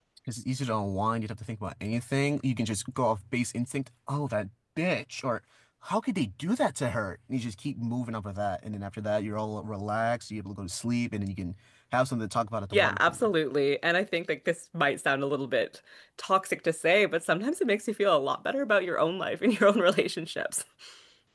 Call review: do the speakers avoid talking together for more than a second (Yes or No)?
Yes